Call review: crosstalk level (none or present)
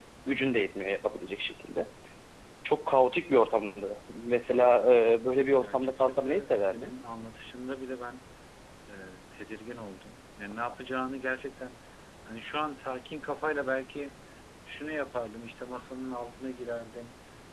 present